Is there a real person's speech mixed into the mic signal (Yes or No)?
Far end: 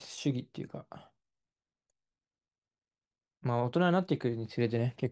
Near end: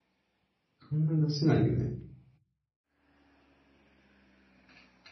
Yes